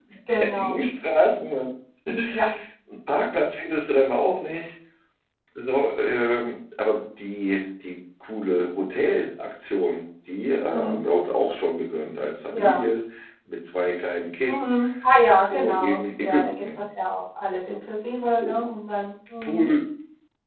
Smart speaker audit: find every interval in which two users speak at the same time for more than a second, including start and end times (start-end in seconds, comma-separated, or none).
15.4-16.6